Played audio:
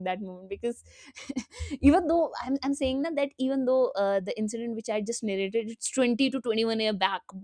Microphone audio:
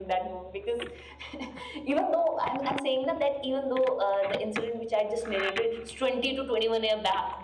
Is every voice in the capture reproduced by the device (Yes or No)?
Yes